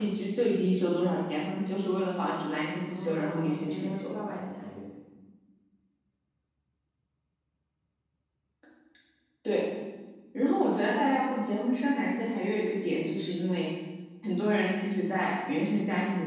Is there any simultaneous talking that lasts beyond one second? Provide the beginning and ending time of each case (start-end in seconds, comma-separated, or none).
2.9-4.2